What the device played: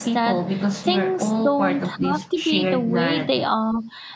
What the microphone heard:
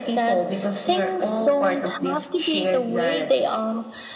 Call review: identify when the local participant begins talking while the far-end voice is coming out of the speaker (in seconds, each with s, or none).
none